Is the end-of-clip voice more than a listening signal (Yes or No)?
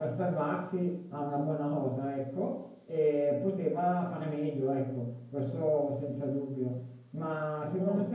No